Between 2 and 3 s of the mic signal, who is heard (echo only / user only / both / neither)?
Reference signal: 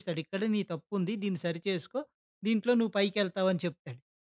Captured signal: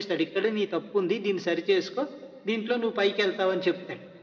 echo only